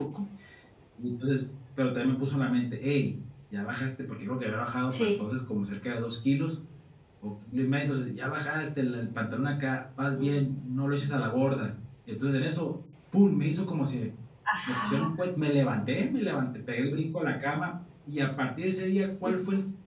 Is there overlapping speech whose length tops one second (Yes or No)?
No